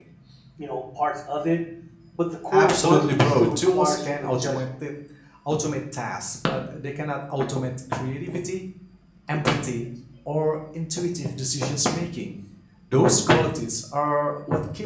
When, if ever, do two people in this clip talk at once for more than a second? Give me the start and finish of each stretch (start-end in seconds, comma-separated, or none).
2.5-4.6